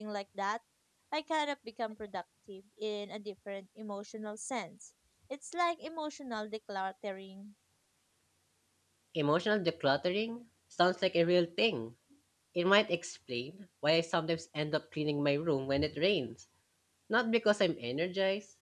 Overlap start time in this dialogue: none

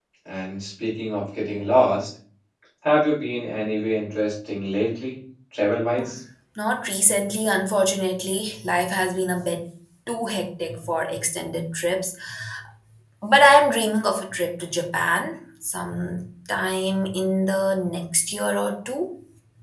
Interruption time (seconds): none

